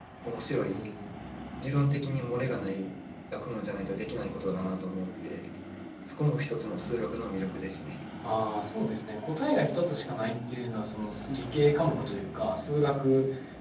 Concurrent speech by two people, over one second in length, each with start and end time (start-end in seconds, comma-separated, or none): none